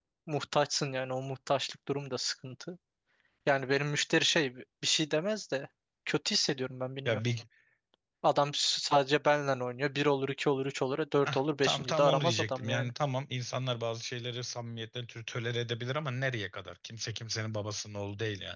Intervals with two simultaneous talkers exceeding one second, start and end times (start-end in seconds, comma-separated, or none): 11.6-12.9